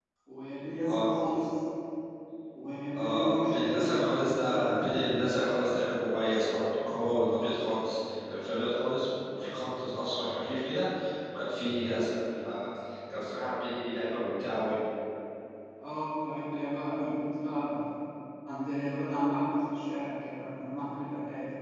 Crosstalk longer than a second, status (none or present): present